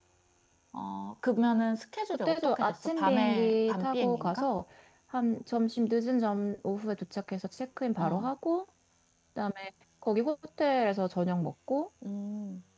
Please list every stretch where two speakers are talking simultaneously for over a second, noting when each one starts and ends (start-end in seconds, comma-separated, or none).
2.2-4.5